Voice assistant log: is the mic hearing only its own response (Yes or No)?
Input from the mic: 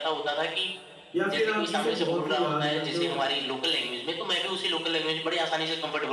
No